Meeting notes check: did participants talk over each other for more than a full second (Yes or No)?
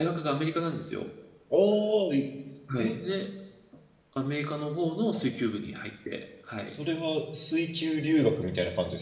No